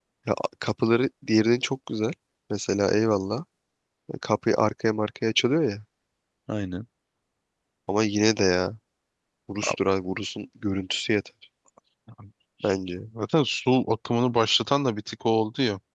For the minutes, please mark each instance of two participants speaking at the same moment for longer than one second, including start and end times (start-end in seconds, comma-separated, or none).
none